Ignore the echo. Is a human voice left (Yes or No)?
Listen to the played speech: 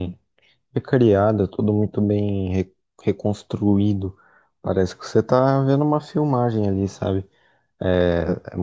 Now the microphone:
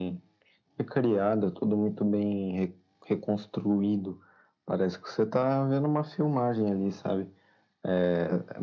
No